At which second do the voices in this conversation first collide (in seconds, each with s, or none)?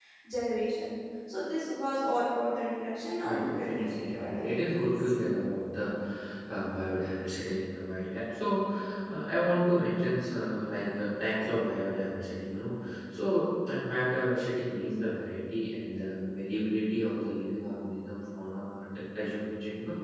3.2 s